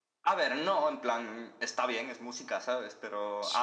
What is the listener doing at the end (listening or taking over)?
listening